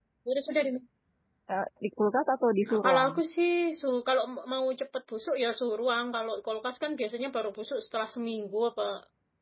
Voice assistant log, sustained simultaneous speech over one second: none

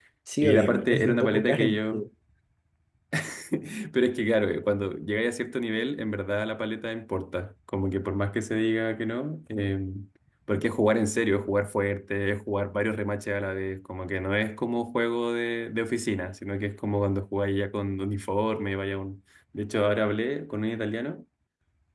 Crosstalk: present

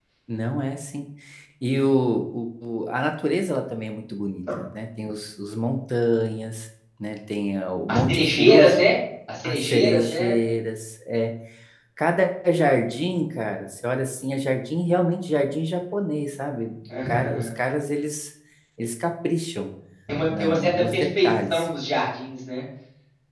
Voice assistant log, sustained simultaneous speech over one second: present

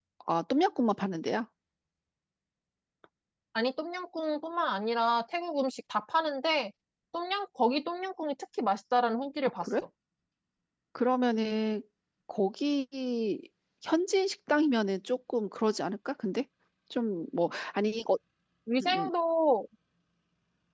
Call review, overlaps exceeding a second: none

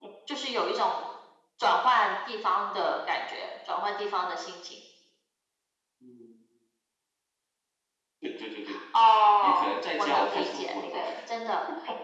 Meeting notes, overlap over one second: present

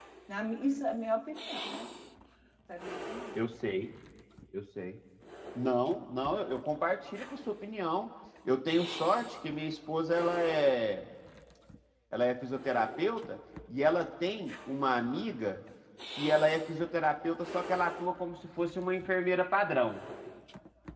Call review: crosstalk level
none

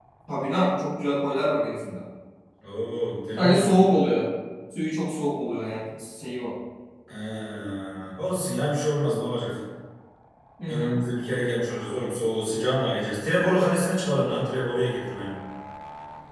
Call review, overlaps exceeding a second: none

